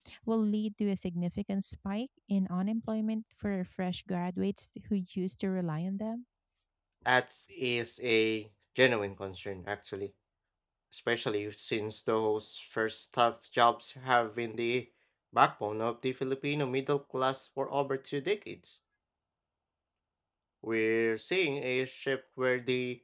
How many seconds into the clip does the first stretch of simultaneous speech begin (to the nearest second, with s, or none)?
none